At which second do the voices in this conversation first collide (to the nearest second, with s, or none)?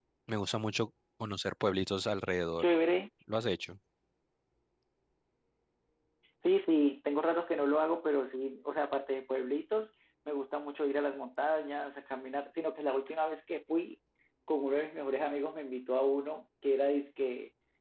none